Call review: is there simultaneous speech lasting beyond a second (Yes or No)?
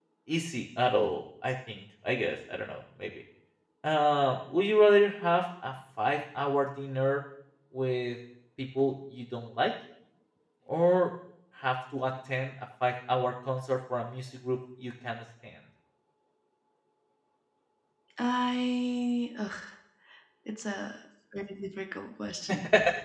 No